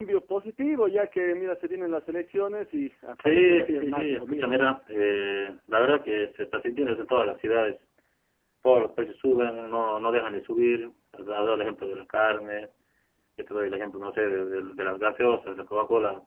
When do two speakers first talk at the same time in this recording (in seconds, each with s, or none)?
3.2 s